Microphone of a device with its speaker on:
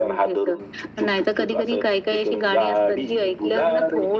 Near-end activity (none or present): none